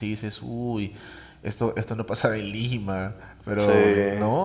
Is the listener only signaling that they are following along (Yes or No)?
Yes